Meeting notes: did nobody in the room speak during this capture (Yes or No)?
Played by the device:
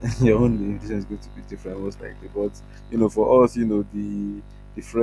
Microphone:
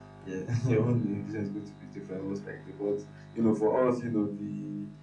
Yes